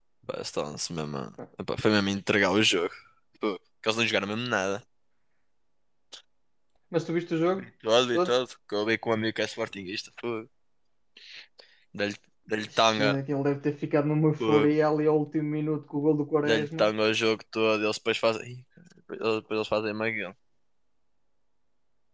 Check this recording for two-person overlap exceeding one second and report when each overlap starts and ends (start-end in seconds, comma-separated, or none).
none